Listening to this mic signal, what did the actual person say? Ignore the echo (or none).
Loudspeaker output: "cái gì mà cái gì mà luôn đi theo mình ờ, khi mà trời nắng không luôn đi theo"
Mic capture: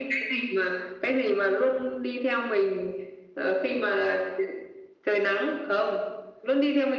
none